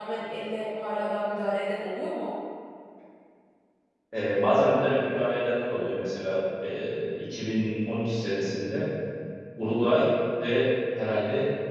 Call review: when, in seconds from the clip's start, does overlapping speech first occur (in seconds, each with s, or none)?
none